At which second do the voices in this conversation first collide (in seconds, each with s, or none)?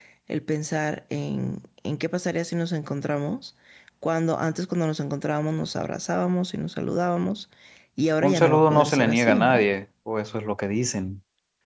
8.2 s